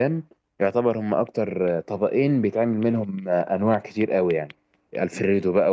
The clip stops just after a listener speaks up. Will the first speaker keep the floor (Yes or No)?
Yes